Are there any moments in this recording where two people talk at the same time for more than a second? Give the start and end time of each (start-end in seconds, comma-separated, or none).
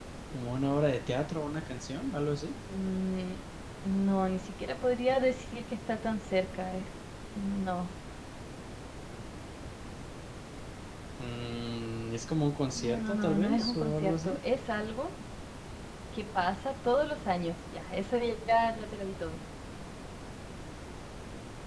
12.7-14.4